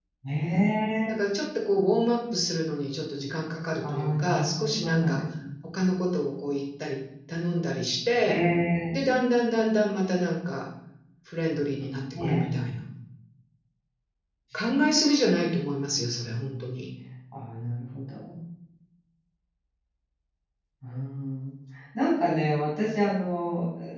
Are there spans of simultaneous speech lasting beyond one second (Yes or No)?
Yes